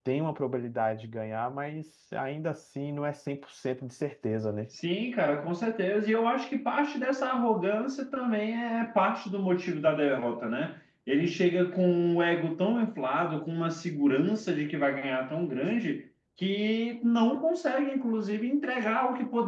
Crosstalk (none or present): none